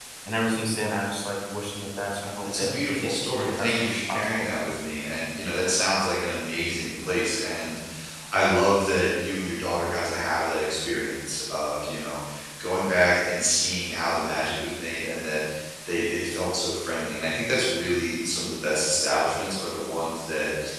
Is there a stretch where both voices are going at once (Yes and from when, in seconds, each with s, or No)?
Yes, from 2.4 s